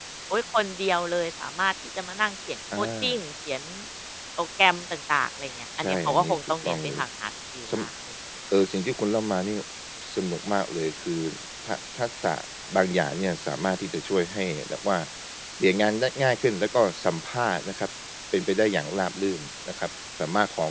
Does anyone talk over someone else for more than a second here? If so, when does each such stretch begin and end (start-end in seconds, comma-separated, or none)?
5.8-7.0